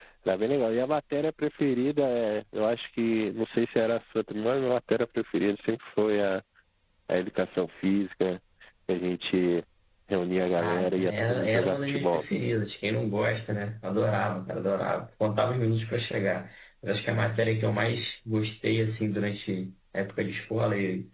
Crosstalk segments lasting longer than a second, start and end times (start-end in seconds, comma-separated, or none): 10.6-12.2